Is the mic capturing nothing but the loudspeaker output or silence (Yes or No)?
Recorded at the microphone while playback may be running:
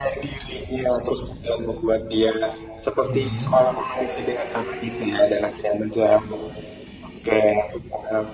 No